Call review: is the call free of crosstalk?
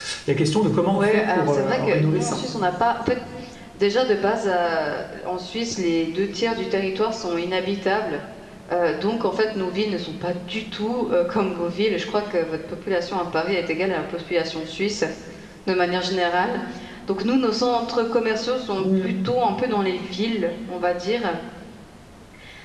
No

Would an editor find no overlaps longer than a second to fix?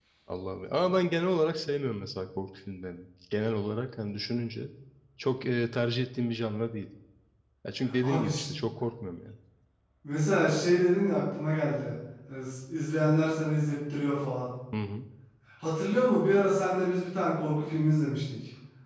Yes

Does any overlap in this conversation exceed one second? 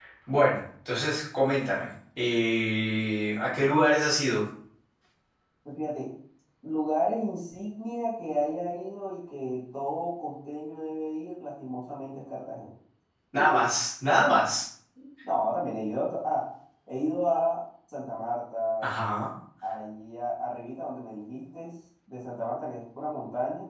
No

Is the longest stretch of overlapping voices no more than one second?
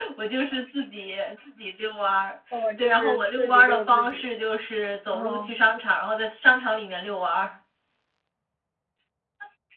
No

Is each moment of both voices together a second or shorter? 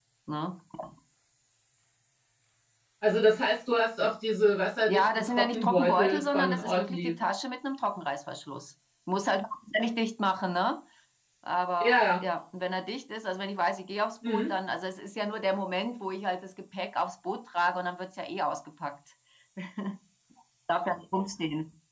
No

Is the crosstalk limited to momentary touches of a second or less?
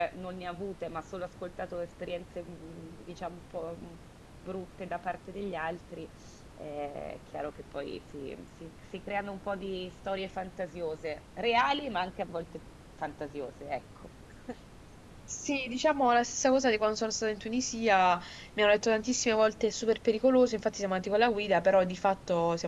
Yes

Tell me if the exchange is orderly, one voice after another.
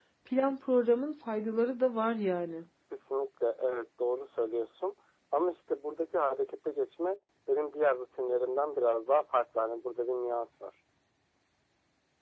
Yes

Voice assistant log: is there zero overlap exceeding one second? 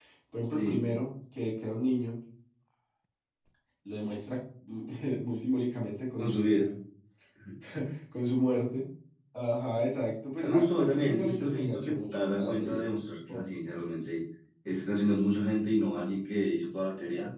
No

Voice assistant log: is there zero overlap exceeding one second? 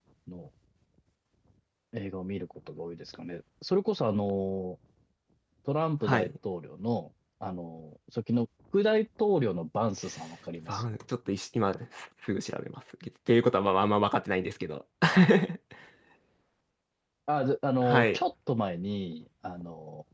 Yes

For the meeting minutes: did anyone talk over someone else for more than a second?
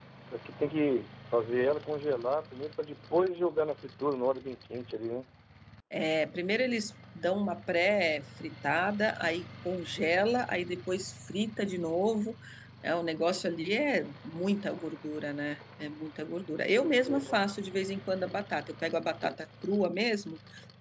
No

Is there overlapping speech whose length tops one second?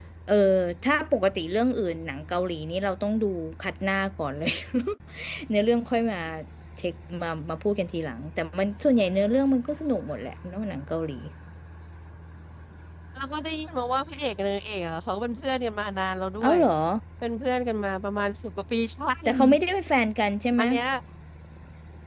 No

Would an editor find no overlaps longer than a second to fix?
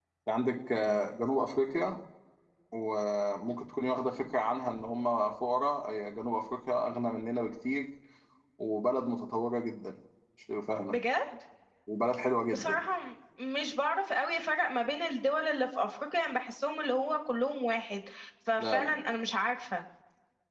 Yes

